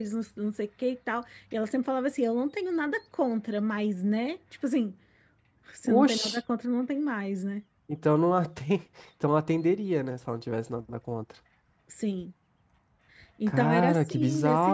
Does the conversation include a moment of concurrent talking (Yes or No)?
Yes